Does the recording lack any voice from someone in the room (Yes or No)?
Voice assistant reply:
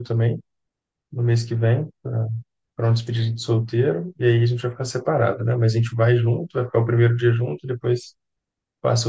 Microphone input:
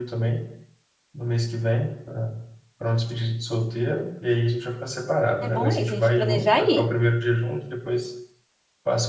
No